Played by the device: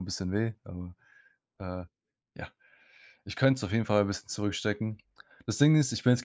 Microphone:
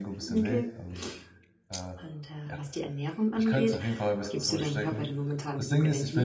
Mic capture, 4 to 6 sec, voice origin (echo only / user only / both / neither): both